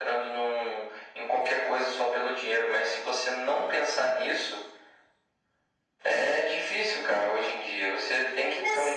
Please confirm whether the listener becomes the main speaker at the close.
No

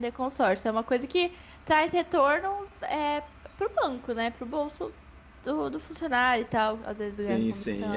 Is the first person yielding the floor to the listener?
Yes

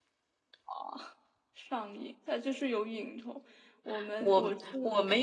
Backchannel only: No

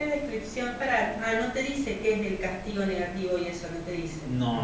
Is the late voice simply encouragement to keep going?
No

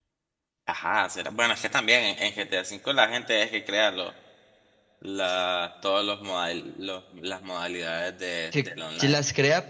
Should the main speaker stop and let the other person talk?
Yes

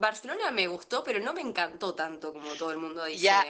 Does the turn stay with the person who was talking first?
No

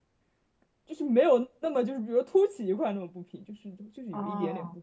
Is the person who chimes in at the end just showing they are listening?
No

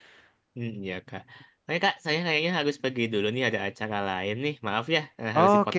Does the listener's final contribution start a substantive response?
Yes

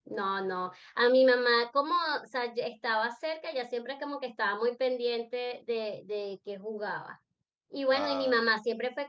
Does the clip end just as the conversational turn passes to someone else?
No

